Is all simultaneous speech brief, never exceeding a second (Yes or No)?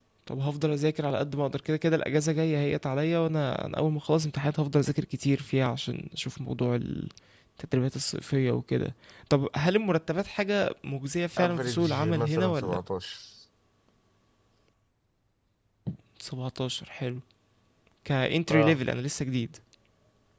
No